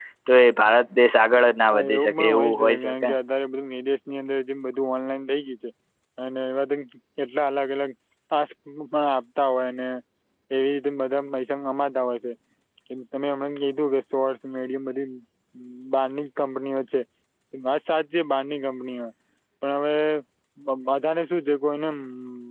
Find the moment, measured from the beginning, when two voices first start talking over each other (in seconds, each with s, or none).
1.7 s